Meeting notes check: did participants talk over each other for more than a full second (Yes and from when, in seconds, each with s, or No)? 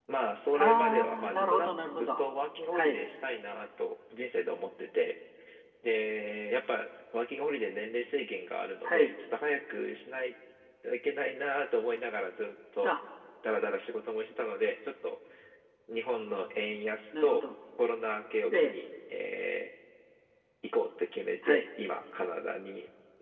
Yes, from 0.5 s